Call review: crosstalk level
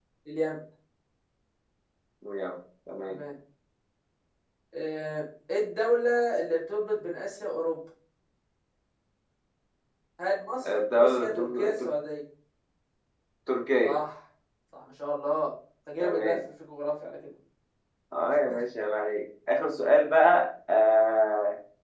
present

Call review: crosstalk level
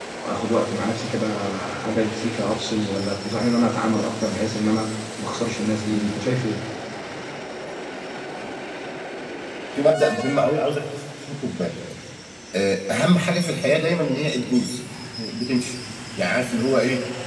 none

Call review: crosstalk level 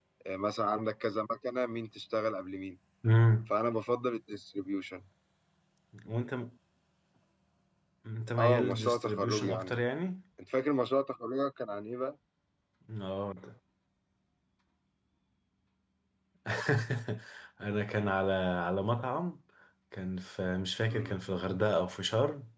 present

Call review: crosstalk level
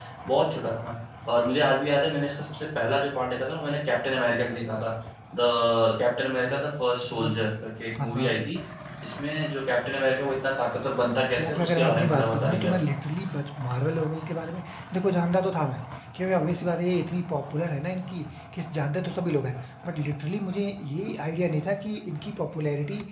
present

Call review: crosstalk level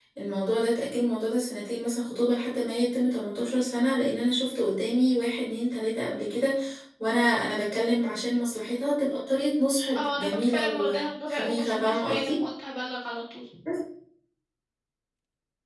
present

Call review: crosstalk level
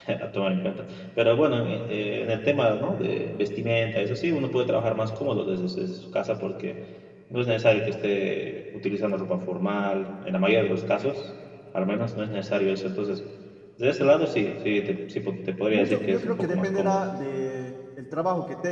present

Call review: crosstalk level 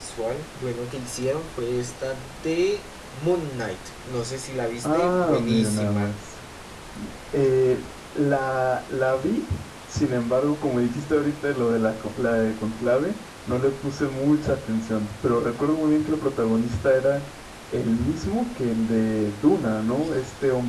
present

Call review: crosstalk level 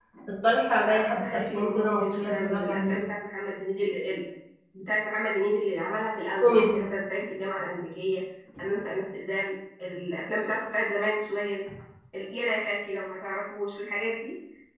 present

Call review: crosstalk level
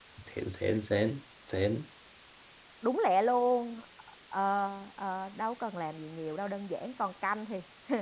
none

